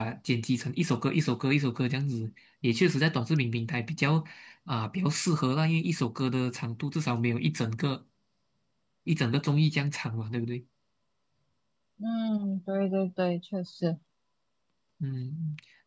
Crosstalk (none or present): none